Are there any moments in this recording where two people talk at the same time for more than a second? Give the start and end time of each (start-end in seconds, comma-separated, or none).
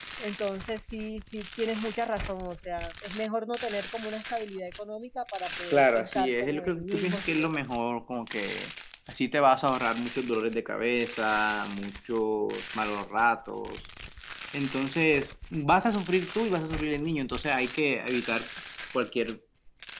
5.7-7.7